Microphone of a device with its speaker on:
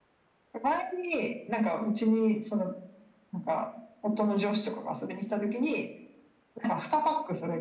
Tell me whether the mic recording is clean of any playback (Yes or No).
No